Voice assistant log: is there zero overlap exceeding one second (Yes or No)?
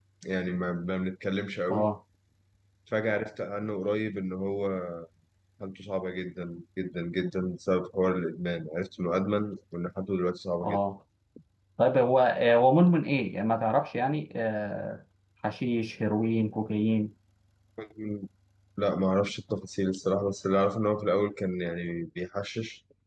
Yes